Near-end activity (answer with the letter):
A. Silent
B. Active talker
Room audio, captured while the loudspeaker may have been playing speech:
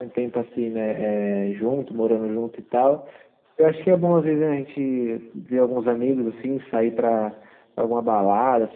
A